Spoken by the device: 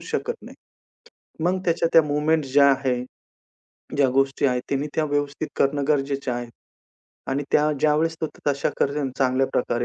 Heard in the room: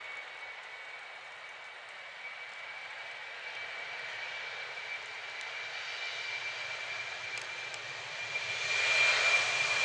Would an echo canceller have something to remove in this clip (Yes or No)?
No